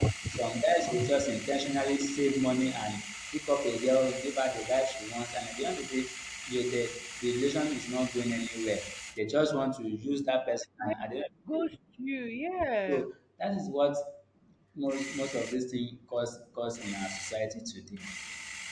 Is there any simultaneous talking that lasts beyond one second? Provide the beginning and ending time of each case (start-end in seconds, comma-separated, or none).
none